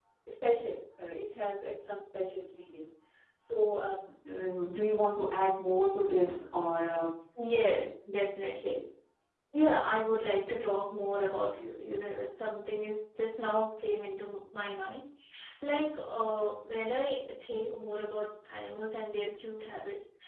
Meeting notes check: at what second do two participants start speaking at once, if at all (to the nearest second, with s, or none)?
none